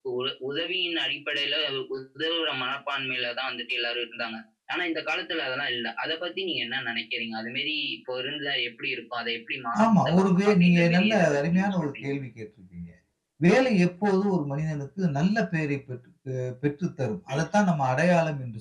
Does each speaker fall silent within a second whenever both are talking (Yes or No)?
No